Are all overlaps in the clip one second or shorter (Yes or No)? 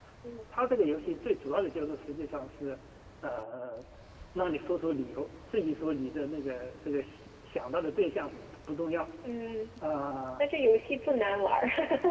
Yes